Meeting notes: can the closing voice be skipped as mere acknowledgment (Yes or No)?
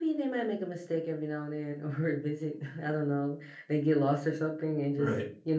Yes